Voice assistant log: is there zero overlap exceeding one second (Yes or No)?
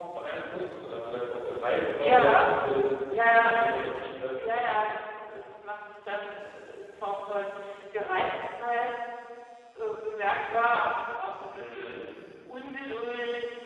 Yes